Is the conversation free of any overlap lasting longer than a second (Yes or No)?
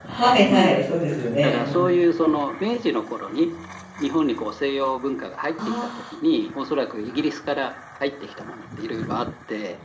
Yes